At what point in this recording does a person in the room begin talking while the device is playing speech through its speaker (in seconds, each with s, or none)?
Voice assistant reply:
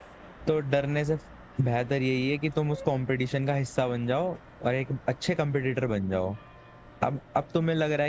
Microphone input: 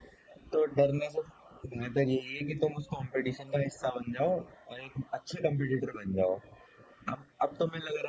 none